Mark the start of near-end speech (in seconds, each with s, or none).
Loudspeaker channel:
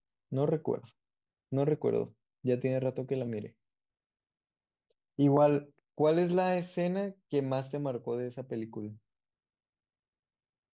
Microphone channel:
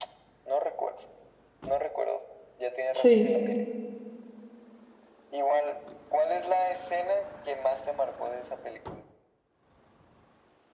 2.9 s